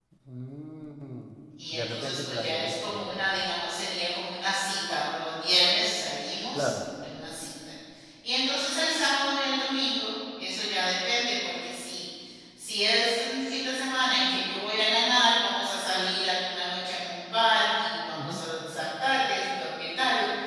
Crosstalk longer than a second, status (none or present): present